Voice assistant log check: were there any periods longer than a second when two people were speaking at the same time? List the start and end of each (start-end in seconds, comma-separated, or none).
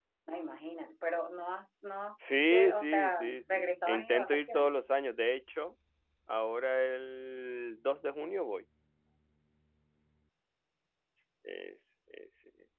2.5-4.7